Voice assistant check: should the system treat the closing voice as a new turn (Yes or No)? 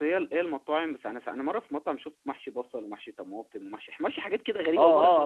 Yes